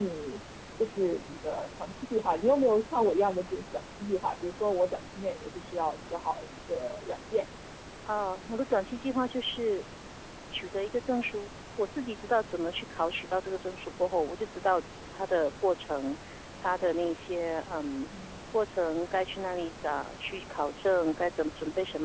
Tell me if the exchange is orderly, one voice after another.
Yes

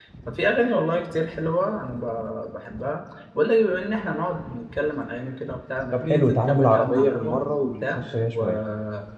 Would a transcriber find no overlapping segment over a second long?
No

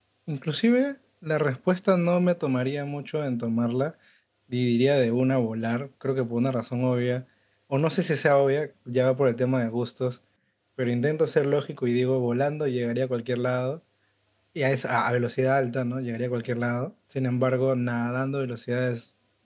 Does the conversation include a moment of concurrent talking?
No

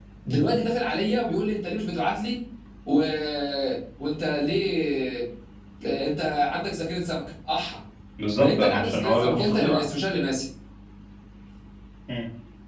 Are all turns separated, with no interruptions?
No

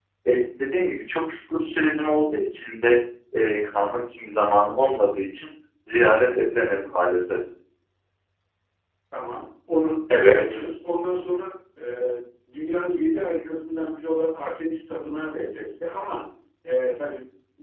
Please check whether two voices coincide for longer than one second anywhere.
No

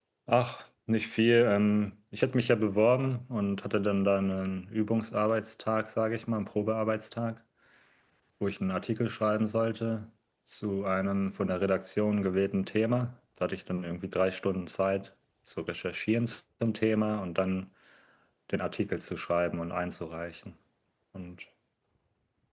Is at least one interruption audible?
No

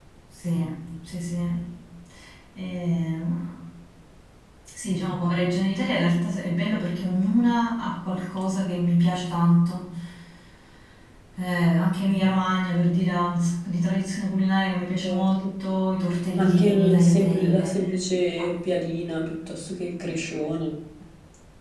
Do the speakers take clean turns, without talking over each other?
No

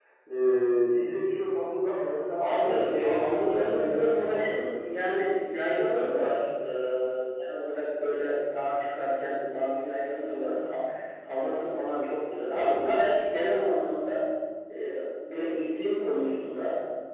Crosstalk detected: Yes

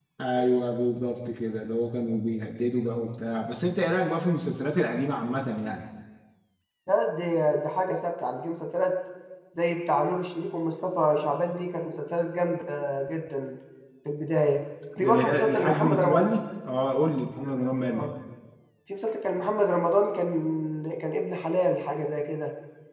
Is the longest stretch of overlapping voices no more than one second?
No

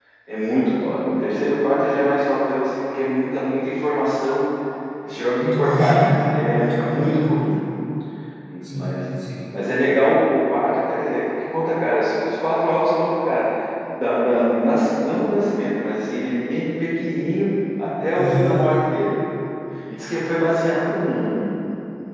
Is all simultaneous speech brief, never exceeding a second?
No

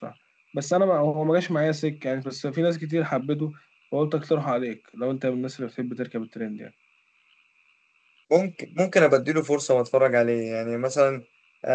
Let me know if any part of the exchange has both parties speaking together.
No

